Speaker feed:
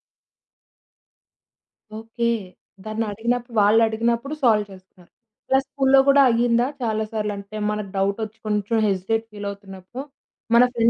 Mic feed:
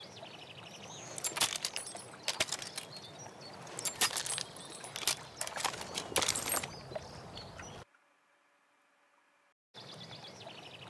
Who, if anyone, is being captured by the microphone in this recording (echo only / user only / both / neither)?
neither